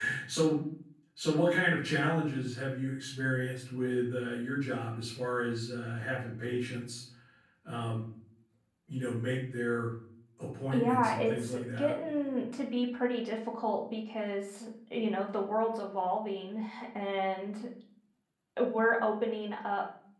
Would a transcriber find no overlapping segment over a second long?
No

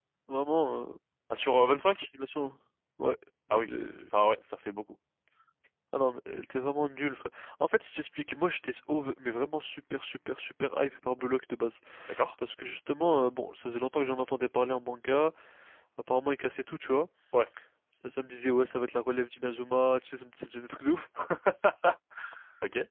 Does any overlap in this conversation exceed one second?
No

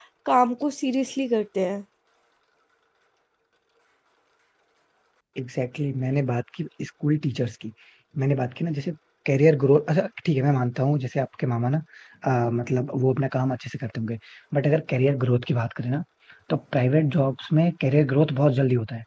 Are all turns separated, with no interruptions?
Yes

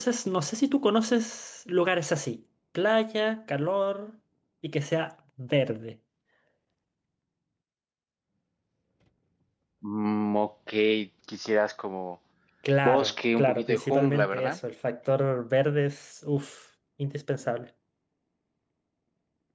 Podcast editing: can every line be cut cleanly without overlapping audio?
No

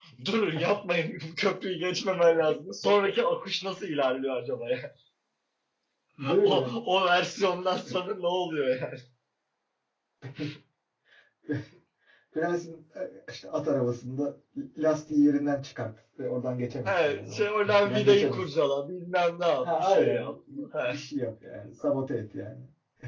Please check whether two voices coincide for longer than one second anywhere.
Yes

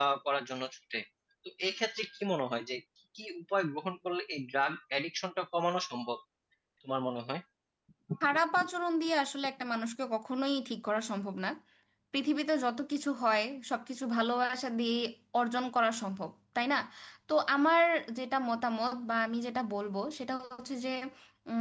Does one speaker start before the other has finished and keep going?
No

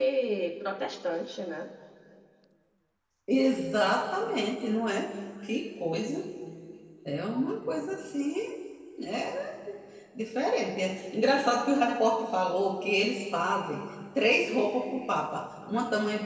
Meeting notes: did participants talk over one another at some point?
No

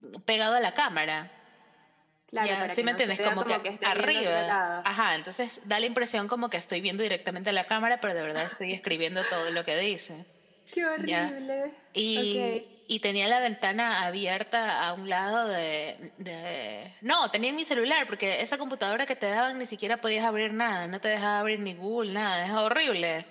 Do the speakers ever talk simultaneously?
Yes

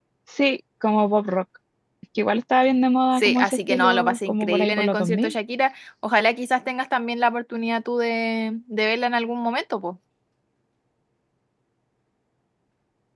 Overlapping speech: Yes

